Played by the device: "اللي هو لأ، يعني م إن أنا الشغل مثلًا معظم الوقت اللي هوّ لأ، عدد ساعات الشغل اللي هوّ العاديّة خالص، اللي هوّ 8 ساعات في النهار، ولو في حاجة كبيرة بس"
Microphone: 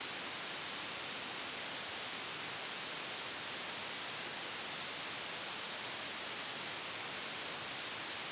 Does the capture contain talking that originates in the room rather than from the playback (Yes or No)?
No